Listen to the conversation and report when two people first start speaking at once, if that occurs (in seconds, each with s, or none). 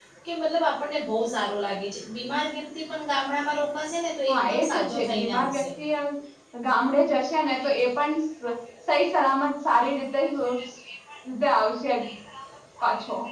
4.3 s